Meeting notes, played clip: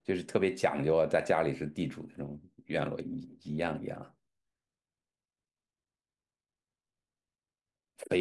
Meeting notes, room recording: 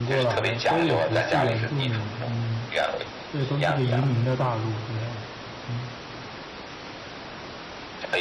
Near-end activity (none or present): present